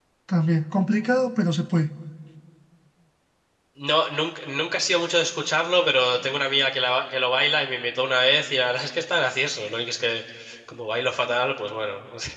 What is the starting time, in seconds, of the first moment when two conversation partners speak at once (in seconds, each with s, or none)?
none